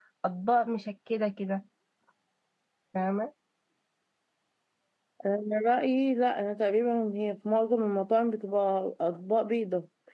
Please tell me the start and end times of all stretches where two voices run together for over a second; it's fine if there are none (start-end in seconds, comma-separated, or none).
none